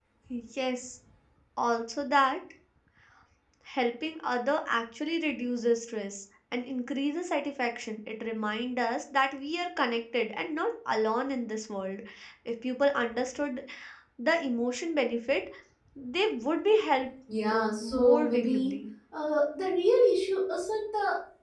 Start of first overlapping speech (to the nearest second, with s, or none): 17 s